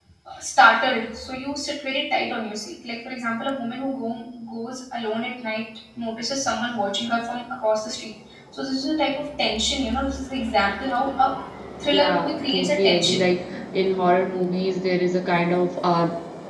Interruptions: present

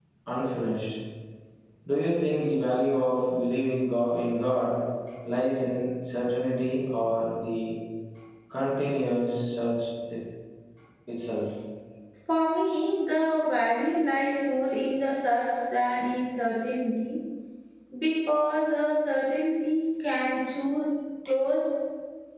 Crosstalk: none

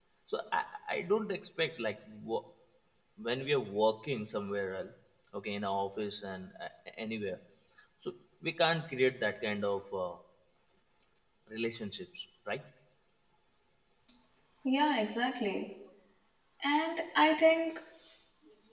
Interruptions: none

